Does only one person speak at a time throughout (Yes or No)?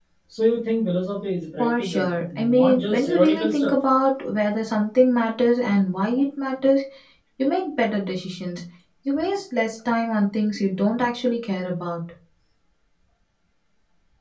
No